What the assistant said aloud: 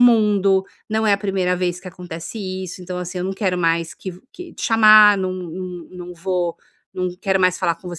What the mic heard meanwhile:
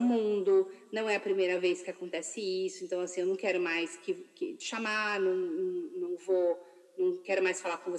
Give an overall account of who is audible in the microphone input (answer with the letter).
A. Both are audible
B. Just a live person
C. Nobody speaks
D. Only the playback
D